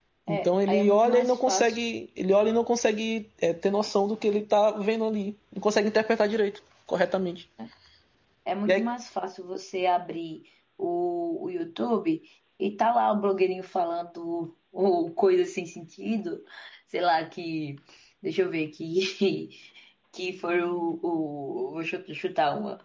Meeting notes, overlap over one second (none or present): present